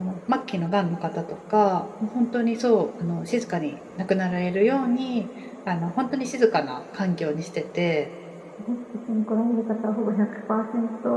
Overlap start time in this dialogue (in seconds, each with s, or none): none